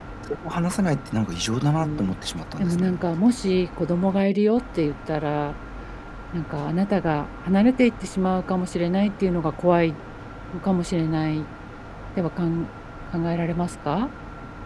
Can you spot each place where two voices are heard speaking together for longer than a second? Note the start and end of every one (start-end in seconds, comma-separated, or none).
none